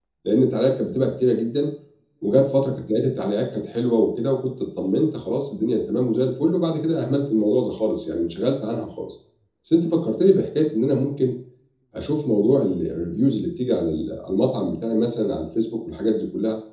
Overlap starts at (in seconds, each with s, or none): none